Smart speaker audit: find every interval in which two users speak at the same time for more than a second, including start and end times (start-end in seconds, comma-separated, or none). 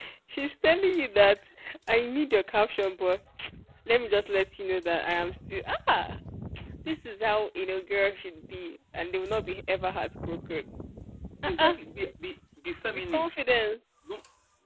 none